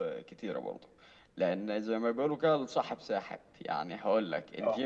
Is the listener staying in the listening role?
Yes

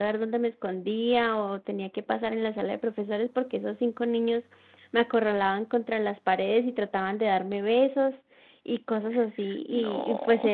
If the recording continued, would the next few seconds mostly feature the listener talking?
No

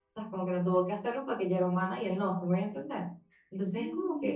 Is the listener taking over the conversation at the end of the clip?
No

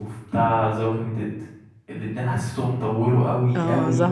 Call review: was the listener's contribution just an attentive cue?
No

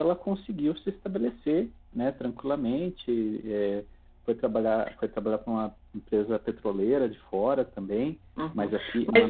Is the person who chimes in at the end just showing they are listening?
No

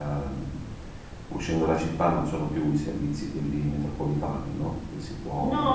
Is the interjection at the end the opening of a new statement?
Yes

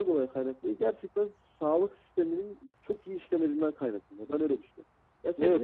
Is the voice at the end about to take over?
No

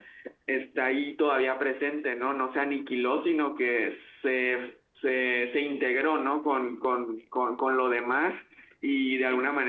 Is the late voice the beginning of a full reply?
No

